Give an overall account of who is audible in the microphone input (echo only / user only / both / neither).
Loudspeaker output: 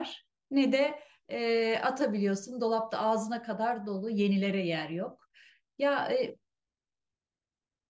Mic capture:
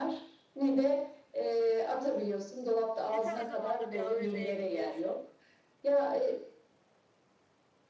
both